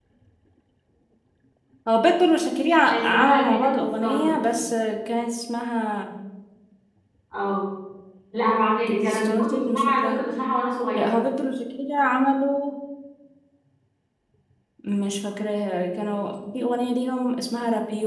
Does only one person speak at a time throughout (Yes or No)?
No